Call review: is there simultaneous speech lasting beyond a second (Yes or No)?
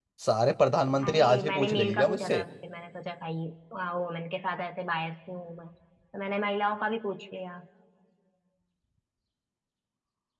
Yes